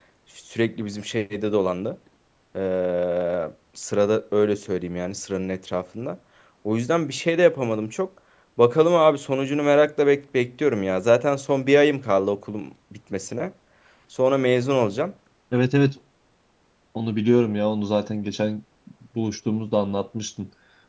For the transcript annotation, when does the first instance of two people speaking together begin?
none

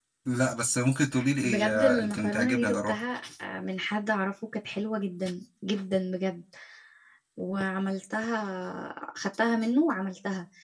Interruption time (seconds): 1 s

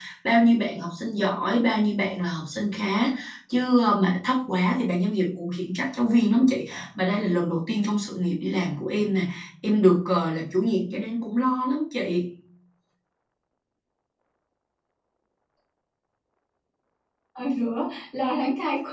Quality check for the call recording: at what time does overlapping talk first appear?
none

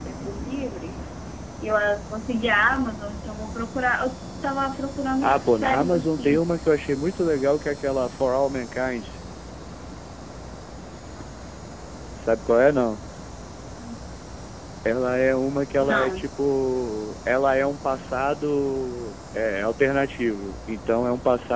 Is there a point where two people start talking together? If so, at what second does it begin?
5 s

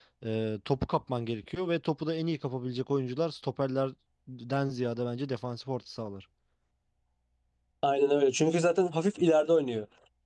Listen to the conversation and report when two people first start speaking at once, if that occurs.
none

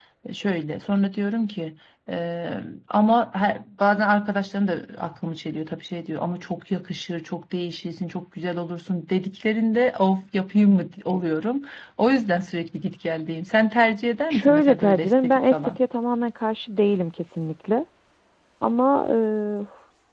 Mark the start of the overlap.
14 s

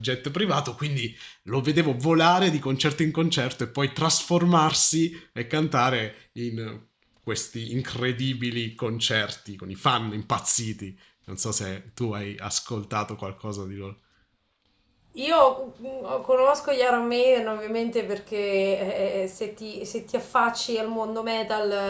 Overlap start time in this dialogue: none

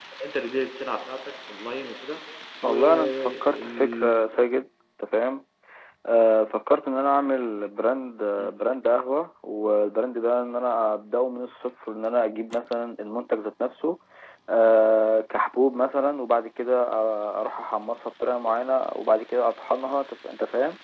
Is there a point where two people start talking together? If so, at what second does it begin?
3 s

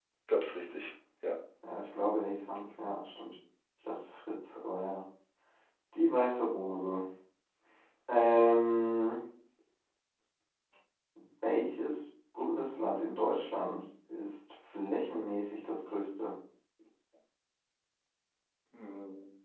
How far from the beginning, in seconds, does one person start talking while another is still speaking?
none

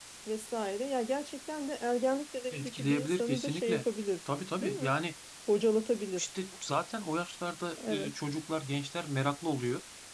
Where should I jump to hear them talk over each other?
3 s

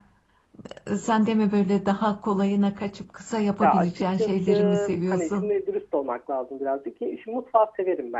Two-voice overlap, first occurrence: 4 s

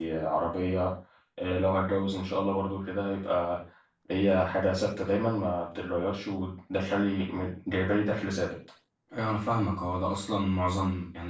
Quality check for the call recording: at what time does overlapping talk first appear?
none

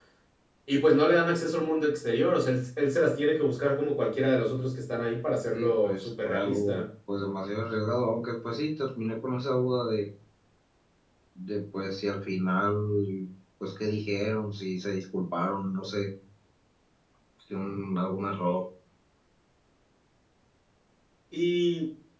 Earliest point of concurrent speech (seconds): 6 s

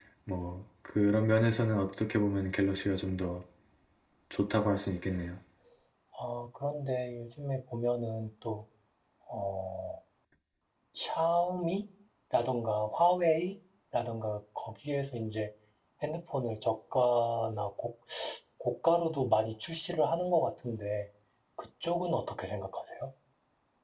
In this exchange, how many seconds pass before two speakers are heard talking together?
none

